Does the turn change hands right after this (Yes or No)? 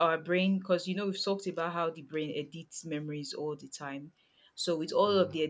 No